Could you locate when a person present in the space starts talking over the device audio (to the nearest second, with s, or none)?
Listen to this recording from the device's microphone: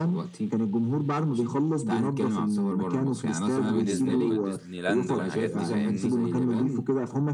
4 s